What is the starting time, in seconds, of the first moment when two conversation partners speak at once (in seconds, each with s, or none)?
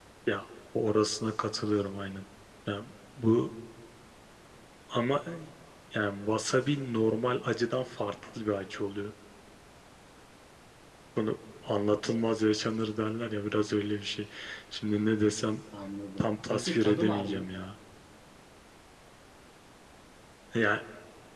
16.2 s